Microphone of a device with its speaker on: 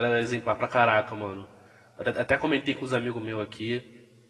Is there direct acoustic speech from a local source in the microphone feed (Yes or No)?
Yes